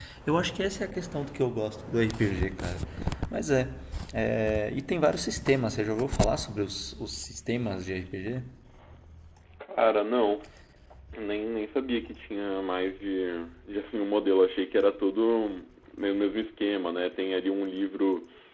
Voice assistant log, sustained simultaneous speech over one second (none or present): none